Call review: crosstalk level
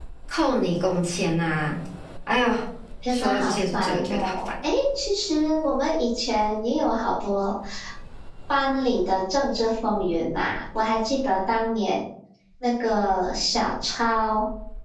present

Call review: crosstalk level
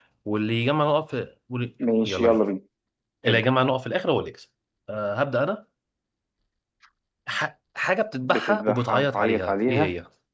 present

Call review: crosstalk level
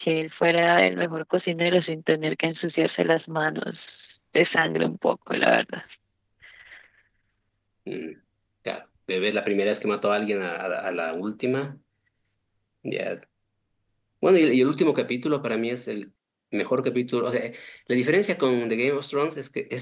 none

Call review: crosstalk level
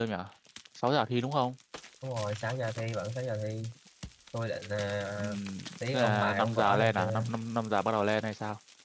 present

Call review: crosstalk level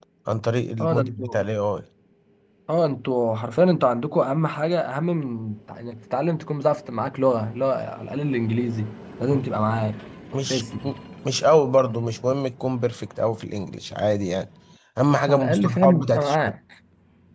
present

